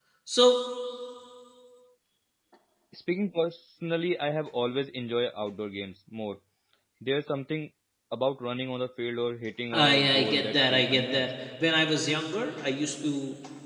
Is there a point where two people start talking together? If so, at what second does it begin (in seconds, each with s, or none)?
9.7 s